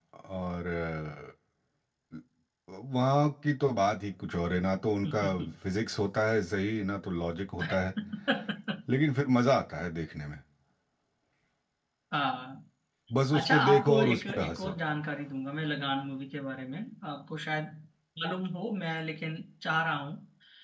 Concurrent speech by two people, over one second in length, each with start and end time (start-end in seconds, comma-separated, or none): 13.4-14.7